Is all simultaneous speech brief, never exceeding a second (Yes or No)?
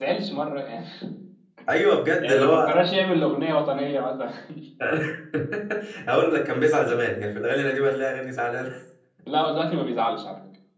Yes